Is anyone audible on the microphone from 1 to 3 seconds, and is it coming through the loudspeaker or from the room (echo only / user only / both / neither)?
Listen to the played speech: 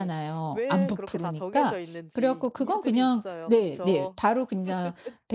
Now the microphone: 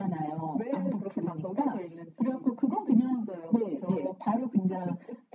echo only